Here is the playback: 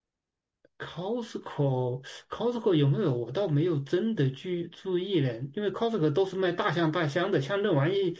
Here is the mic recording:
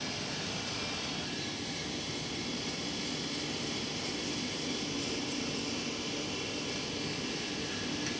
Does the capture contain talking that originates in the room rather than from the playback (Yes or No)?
No